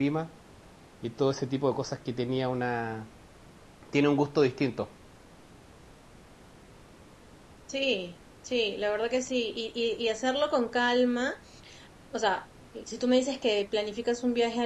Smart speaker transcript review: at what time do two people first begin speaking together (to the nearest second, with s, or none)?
none